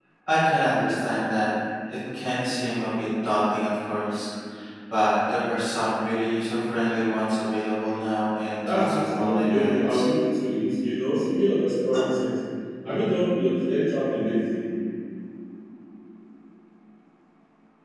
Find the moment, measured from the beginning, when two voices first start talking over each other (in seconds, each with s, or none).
8.6 s